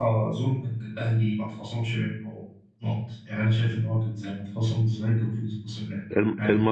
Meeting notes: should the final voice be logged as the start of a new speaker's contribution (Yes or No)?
Yes